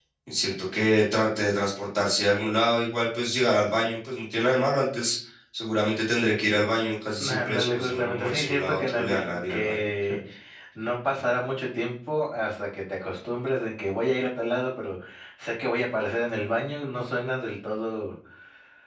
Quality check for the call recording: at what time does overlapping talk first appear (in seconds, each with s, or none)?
7.2 s